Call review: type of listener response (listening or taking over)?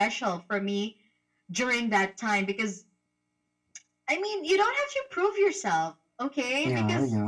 listening